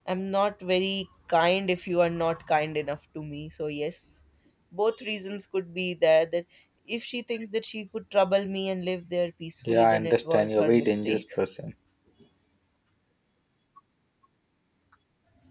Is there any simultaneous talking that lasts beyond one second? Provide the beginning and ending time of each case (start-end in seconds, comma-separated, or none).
9.7-11.2